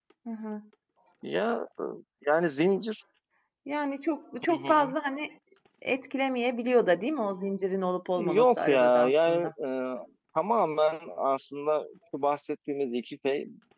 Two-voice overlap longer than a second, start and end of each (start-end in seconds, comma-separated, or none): 8.2-9.5